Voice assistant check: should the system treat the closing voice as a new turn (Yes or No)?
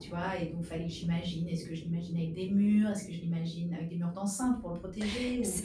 Yes